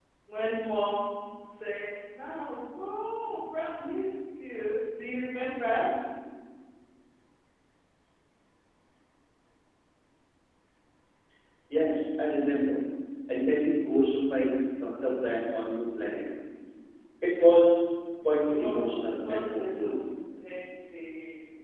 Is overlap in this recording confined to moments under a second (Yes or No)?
No